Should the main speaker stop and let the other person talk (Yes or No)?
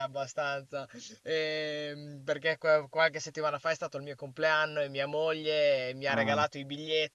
No